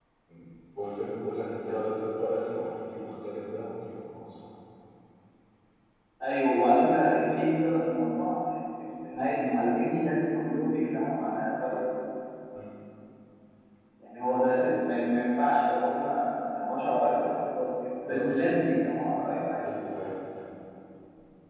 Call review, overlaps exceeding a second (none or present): none